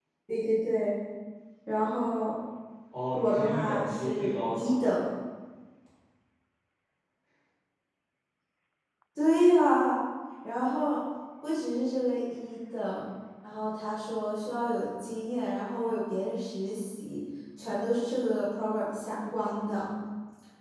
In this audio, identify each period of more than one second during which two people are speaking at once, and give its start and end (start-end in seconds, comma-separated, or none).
3.1-4.8